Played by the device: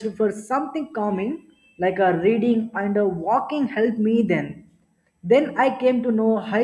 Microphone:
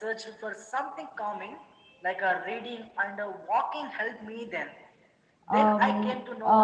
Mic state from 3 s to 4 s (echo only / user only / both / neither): echo only